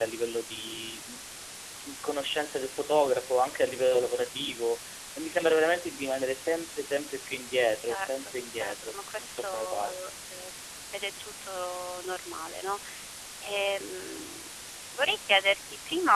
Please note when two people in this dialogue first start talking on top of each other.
7.9 s

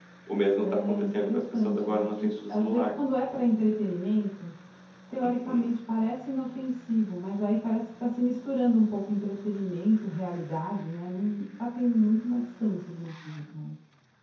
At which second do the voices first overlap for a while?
0.6 s

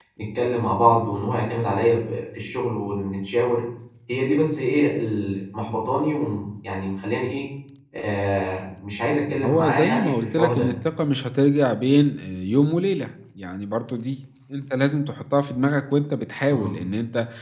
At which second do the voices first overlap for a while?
9.2 s

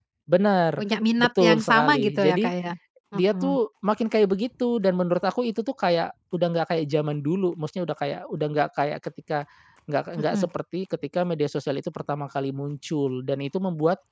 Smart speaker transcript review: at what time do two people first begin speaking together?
1.2 s

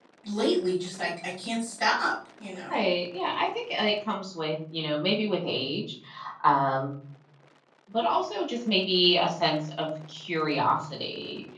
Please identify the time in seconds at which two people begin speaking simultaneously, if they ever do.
none

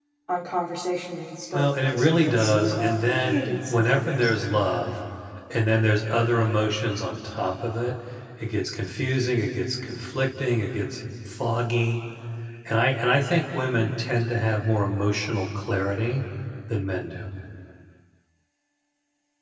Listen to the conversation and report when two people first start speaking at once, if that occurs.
1.5 s

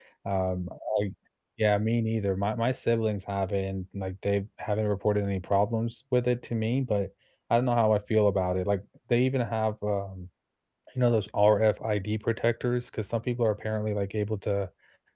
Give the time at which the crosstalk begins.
none

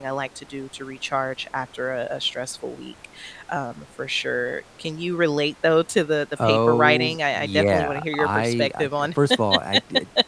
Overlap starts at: 6.4 s

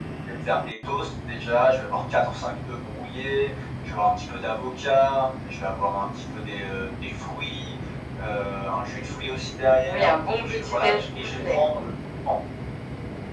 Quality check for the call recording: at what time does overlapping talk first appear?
9.8 s

